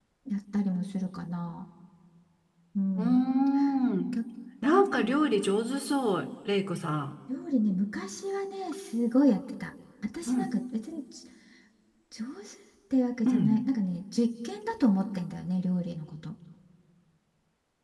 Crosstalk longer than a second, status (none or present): none